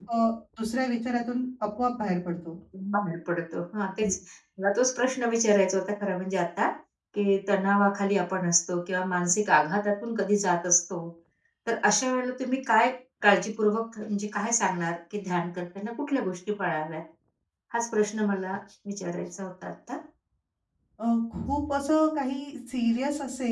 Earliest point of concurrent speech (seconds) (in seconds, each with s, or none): none